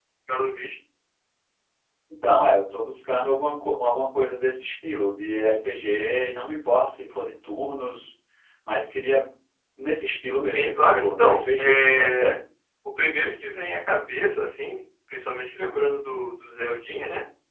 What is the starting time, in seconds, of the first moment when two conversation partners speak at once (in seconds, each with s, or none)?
10.5 s